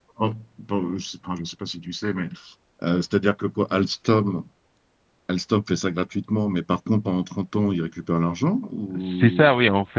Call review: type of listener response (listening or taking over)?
taking over